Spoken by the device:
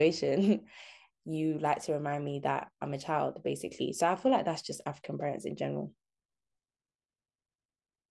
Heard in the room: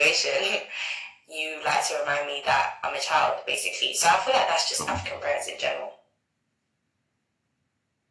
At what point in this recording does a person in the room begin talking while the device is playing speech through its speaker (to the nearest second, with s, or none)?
5 s